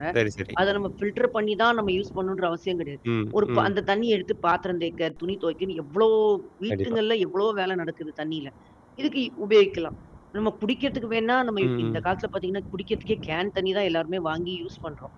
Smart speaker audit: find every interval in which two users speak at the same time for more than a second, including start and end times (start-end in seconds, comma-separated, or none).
none